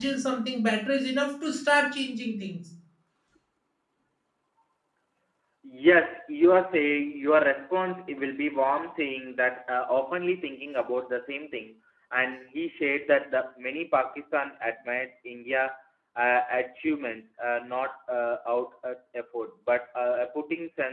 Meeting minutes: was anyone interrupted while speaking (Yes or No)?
No